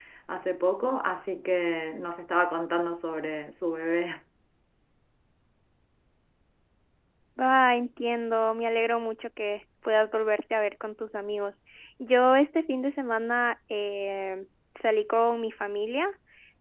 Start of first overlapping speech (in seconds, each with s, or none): none